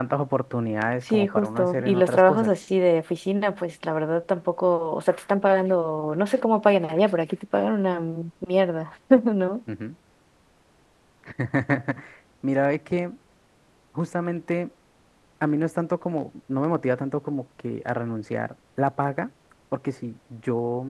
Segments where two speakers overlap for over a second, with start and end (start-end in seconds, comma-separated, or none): 1.1-2.5